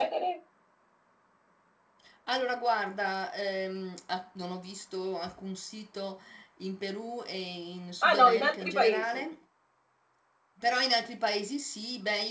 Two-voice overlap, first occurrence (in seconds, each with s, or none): 8.0 s